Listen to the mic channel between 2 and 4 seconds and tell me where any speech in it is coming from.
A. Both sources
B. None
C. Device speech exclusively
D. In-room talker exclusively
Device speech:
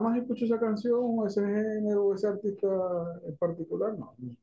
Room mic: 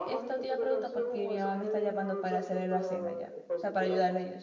A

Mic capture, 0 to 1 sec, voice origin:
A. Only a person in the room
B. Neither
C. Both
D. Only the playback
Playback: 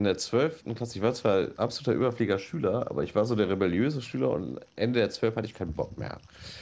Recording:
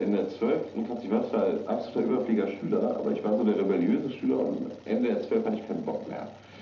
D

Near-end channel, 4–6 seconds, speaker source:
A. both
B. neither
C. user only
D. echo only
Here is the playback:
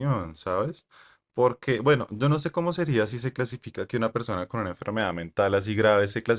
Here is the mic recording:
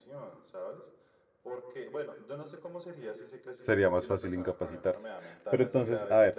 A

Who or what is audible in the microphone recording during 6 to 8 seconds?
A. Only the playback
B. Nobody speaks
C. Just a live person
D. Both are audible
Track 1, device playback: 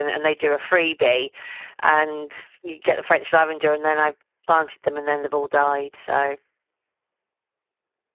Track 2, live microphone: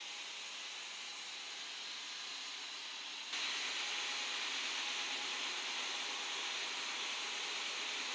B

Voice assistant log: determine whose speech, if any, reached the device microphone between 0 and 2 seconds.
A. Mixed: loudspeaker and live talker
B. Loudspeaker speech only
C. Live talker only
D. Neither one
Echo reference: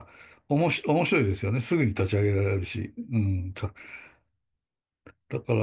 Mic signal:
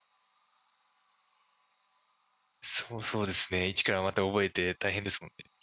D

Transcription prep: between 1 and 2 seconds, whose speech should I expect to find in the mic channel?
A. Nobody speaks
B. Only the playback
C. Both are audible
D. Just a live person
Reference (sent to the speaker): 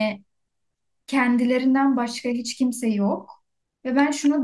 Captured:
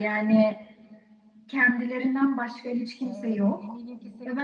B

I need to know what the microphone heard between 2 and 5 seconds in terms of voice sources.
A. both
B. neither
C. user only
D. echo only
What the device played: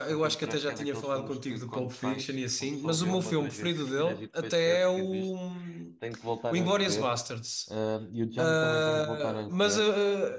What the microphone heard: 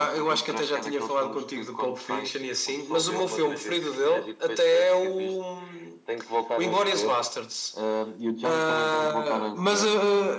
D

